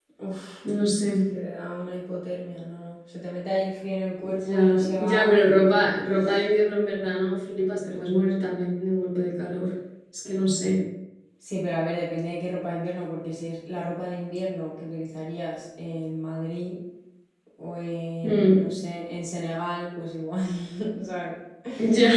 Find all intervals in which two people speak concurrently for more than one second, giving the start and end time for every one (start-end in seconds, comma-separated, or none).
4.2-5.5